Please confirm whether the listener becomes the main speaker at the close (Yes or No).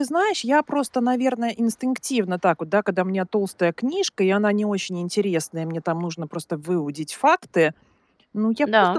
No